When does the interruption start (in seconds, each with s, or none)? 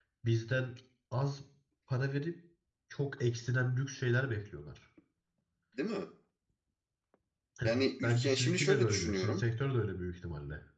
7.6 s